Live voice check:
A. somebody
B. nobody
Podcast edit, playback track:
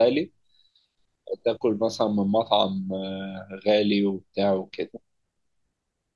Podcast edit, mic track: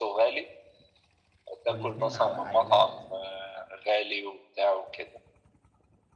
A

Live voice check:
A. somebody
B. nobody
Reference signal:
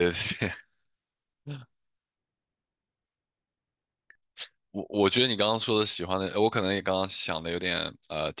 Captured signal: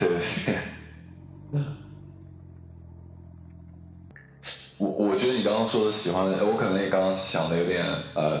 B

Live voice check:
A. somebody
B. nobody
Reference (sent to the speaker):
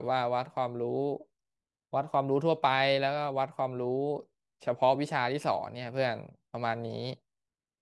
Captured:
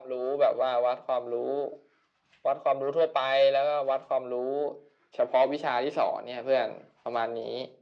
B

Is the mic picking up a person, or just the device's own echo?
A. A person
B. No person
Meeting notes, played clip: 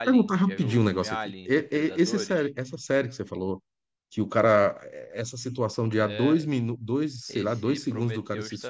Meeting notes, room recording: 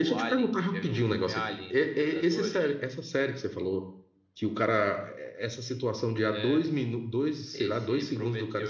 B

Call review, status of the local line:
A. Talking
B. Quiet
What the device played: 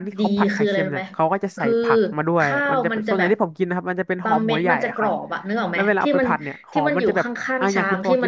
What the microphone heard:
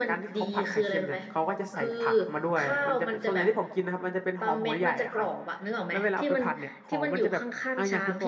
B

